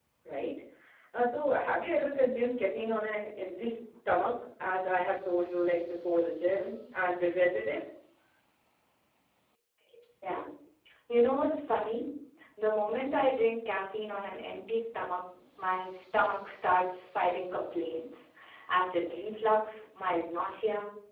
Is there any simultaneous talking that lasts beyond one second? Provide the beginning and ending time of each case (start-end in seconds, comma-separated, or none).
none